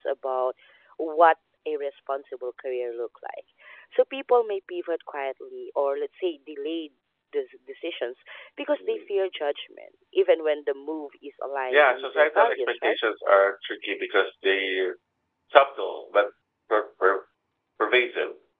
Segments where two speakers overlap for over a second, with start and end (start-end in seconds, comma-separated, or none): 11.7-13.0